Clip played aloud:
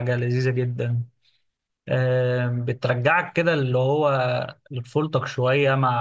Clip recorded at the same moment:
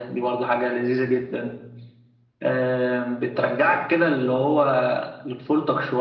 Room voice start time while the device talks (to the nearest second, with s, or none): none